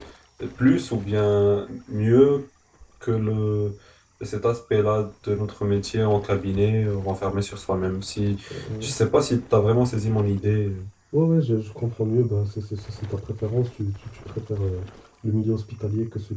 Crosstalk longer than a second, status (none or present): none